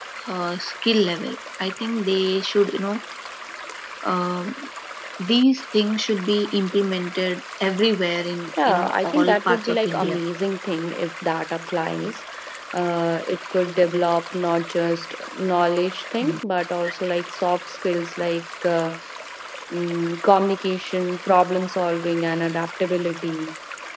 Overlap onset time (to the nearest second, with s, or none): 9 s